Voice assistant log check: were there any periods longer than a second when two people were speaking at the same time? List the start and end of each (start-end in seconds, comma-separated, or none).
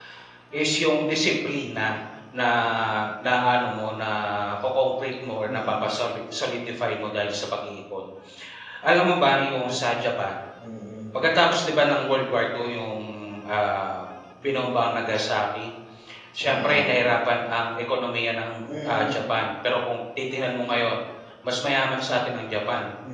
none